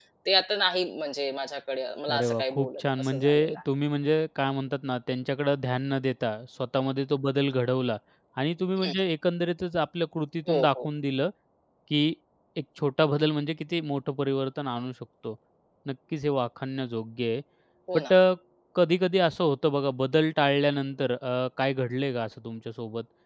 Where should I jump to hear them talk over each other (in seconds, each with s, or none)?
2.1 s